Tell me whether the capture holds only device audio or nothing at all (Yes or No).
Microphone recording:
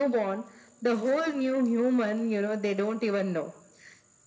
Yes